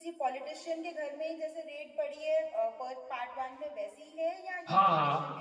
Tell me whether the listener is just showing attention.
No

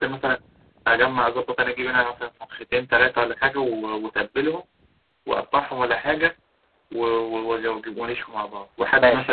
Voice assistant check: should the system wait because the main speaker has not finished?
Yes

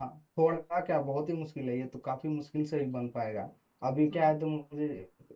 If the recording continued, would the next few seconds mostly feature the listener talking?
No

